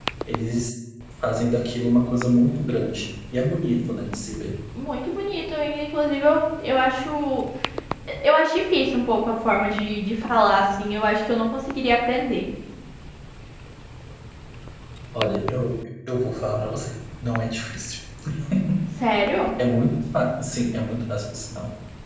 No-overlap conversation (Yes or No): Yes